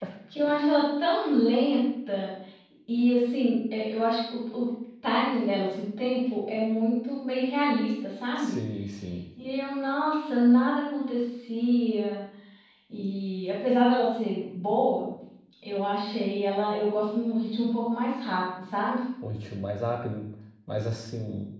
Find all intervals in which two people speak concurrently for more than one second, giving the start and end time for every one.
none

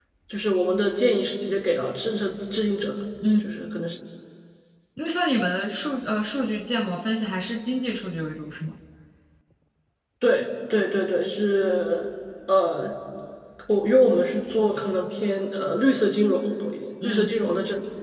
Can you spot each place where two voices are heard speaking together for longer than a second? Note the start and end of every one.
none

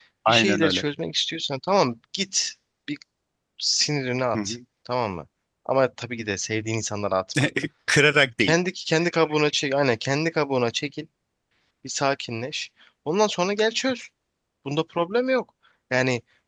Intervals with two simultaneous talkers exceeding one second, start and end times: none

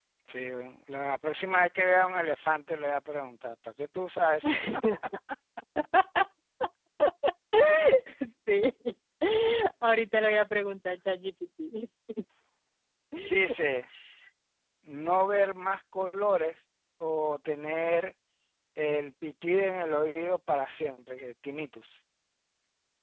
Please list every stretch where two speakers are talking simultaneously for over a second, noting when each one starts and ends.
none

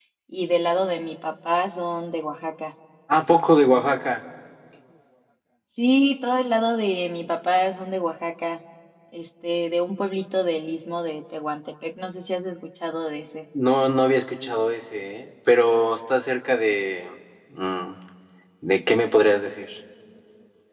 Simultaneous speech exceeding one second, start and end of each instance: none

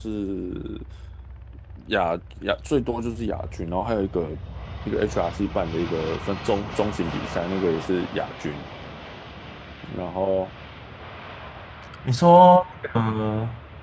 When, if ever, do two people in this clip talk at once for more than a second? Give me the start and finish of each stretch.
none

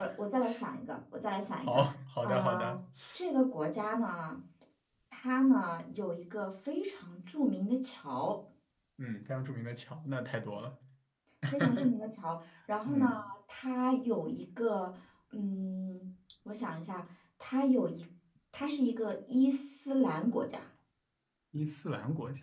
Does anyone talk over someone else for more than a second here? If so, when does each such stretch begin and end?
none

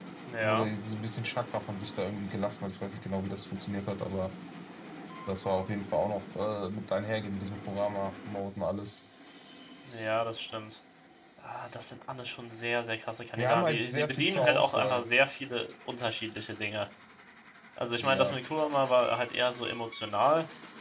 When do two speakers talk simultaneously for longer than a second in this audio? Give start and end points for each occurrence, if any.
13.4-15.0

